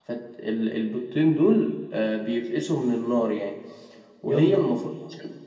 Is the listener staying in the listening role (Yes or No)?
Yes